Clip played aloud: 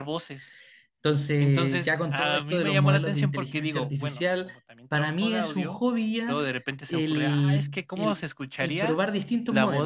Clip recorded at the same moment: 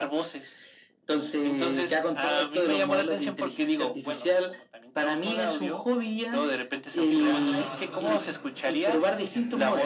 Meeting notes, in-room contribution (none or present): present